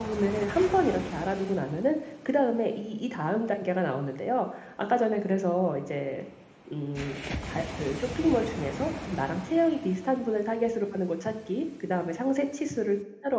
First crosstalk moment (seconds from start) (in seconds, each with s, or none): none